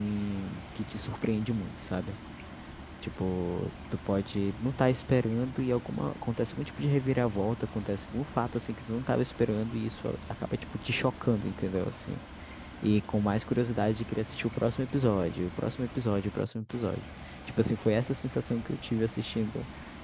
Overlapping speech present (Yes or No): No